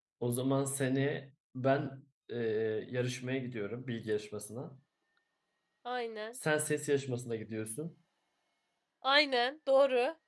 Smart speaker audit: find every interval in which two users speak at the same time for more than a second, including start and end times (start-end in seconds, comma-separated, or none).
none